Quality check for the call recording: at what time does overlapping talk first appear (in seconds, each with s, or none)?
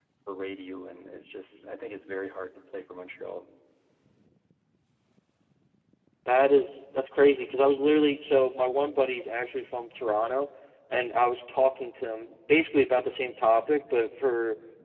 none